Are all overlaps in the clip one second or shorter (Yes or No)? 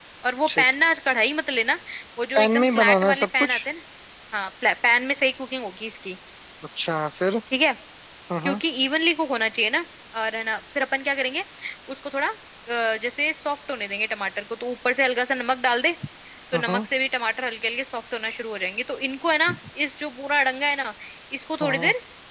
No